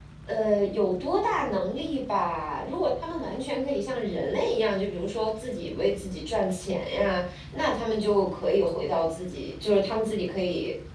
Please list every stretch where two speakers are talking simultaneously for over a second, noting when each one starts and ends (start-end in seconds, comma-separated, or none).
none